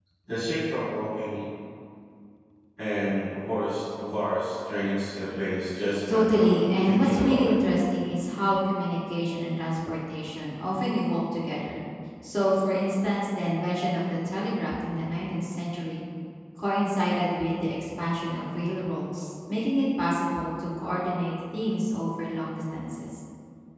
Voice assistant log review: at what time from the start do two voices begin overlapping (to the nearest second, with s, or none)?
6 s